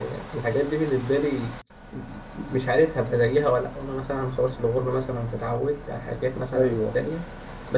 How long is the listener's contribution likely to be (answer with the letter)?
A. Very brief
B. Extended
A